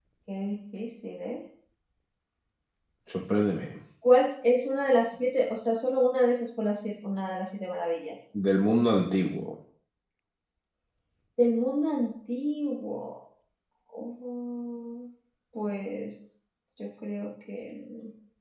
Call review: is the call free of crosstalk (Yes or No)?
Yes